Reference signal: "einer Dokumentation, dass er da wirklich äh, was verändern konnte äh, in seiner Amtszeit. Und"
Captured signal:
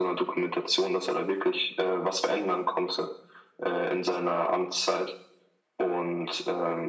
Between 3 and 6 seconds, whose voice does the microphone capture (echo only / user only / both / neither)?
echo only